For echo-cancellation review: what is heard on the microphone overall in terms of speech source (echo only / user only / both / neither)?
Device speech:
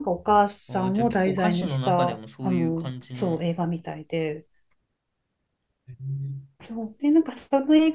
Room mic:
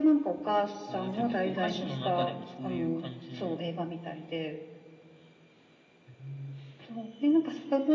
echo only